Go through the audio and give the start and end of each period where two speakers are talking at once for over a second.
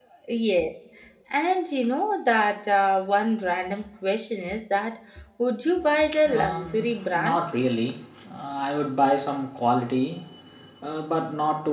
6.3-7.6

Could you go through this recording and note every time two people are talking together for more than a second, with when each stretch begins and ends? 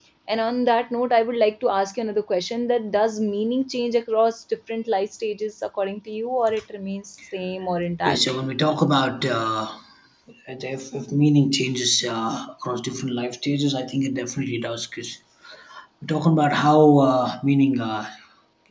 none

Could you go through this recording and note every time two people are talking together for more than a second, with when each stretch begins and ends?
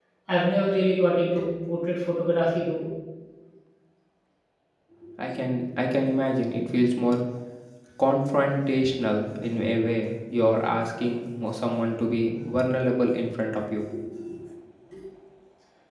none

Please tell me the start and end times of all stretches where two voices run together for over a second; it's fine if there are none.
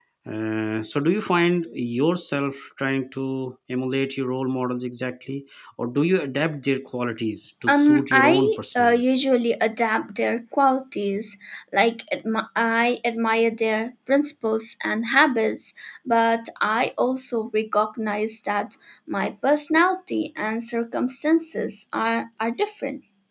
7.7-9.0

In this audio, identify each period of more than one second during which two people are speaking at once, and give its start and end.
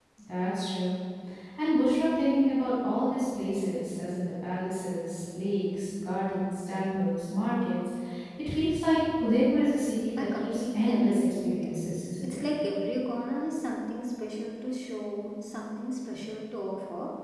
10.2-12.4

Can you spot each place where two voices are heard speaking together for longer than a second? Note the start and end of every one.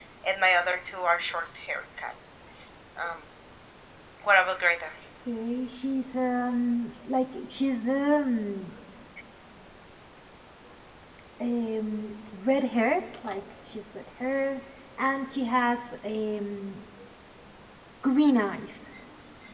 none

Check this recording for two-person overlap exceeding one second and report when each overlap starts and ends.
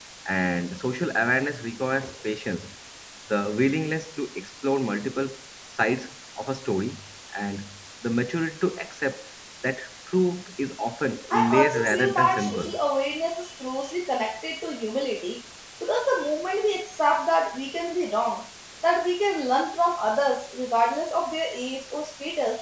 11.3-12.8

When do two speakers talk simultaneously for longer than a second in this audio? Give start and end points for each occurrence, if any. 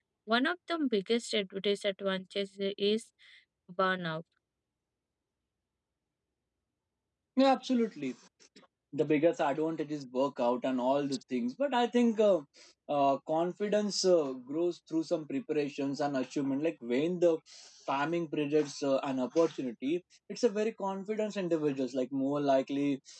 none

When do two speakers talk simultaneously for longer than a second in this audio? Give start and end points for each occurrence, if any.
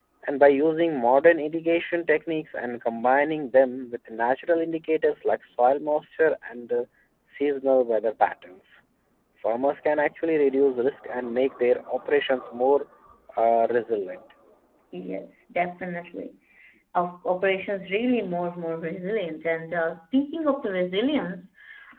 none

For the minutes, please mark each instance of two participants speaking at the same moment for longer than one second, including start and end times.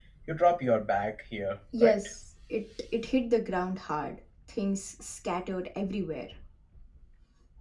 none

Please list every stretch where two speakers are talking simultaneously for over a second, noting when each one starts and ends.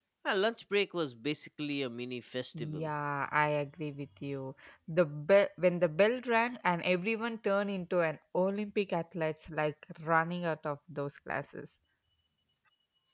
none

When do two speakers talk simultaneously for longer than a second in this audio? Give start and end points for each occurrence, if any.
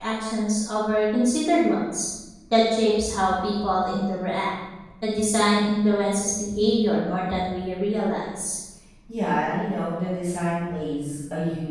none

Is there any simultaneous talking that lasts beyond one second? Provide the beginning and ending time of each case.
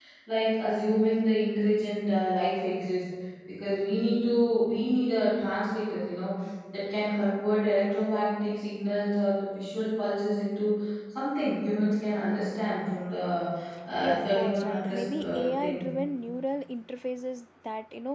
14.0-15.9

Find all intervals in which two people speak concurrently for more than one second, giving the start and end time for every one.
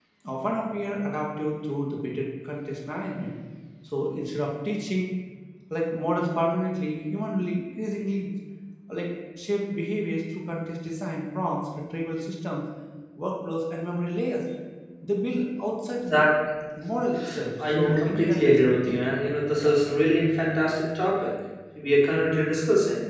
17.6-19.0

